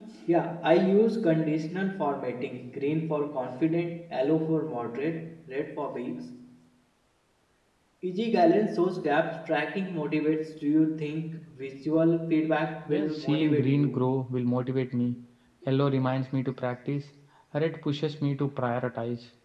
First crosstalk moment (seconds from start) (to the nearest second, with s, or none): 13 s